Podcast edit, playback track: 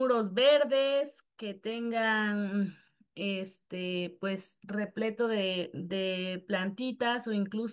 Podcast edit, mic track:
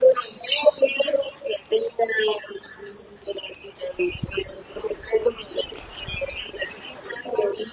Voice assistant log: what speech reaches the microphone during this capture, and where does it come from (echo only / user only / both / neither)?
echo only